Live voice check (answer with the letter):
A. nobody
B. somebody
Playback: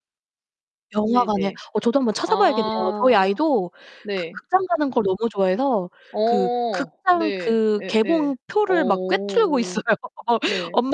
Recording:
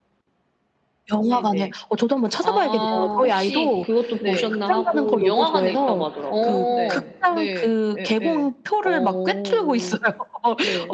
B